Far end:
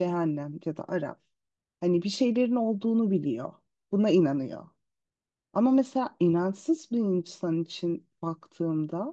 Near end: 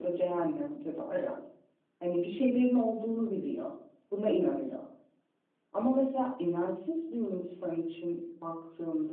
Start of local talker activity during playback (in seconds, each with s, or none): none